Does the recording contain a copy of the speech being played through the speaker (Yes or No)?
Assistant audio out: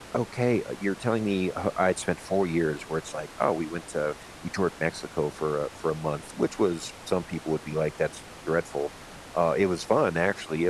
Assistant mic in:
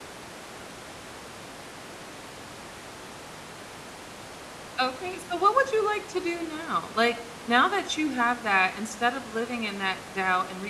No